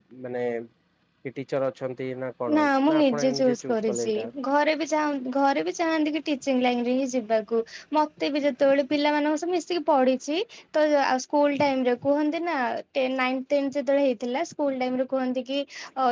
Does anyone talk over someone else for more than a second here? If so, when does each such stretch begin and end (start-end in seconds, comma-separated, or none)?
2.6-4.1